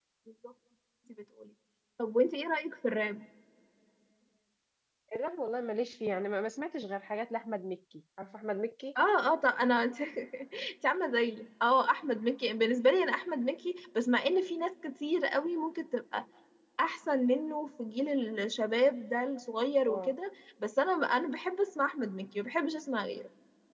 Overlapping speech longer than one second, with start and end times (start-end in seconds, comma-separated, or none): none